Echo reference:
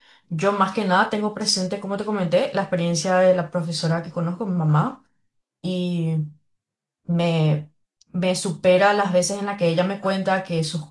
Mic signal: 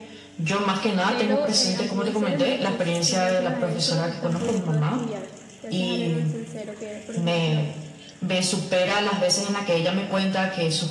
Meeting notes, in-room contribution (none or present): present